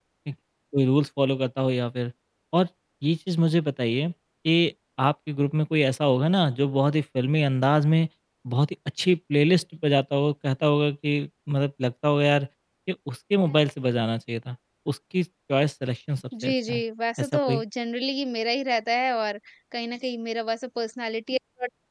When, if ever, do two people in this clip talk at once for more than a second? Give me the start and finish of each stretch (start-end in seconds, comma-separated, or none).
none